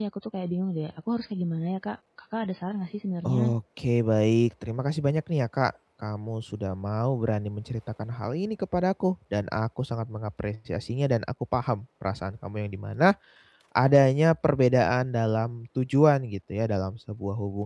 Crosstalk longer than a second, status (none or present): none